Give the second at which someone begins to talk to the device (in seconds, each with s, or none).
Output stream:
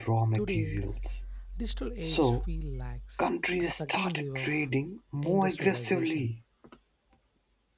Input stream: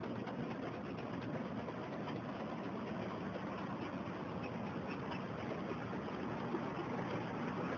none